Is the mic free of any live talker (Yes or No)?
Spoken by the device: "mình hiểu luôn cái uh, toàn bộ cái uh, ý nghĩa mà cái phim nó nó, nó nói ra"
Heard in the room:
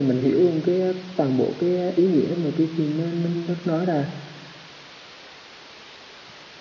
Yes